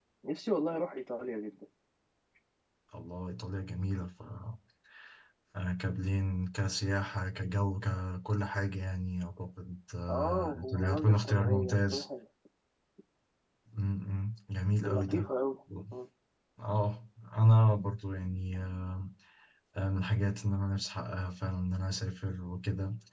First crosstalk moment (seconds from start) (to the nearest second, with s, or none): 10 s